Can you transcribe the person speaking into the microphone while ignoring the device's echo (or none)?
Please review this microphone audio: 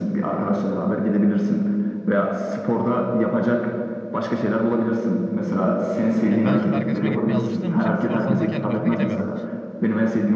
yani ben şimdi arkadaşıma gitmeye alıştığım için spor salonuna kendi başıma gidemiyorum.